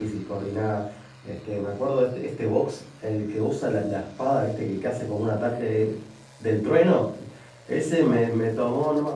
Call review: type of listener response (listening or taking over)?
listening